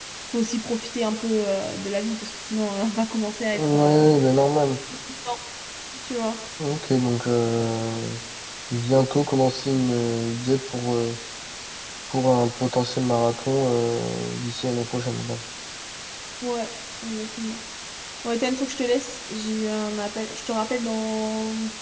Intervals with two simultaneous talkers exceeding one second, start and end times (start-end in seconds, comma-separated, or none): none